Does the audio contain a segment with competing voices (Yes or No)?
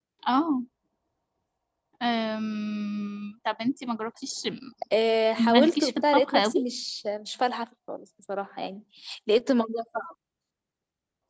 Yes